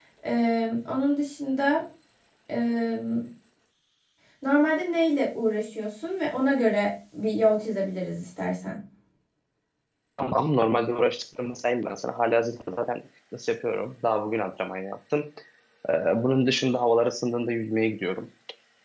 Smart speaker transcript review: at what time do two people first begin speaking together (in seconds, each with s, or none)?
none